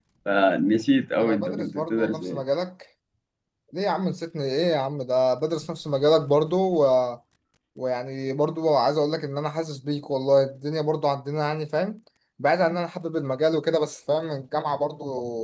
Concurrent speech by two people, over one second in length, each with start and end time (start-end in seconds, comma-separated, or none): 1.2-2.4